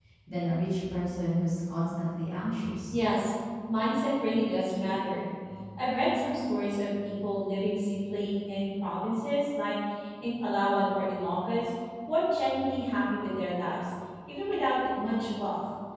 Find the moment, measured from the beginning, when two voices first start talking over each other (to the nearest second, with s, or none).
none